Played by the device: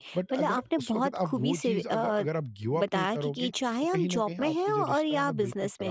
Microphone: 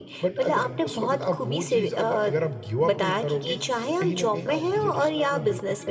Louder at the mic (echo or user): echo